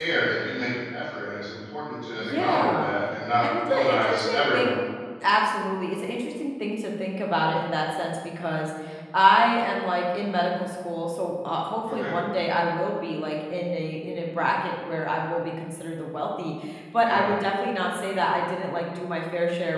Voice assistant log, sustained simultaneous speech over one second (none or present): present